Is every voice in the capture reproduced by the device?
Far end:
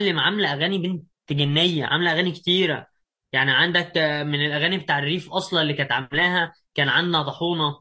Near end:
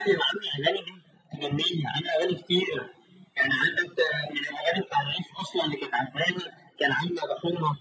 Yes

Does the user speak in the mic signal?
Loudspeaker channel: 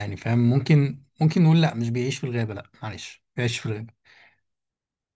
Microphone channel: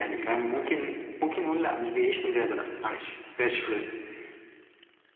No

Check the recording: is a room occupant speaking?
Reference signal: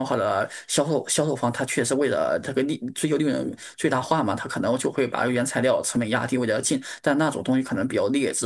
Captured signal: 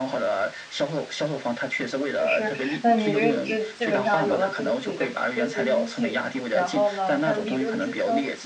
Yes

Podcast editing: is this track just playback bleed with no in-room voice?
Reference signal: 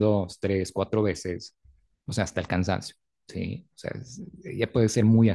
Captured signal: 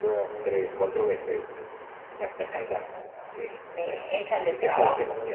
No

